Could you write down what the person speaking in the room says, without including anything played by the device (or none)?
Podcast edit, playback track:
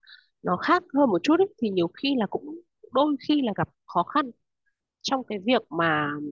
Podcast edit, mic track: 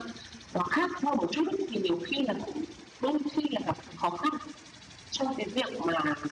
none